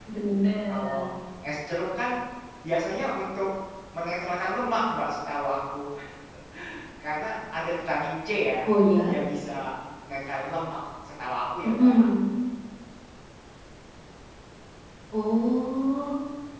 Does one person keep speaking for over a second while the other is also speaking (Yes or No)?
No